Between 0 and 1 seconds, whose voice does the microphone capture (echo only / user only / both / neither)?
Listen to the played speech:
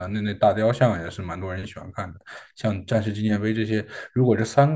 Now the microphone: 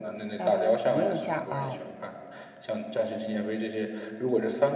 both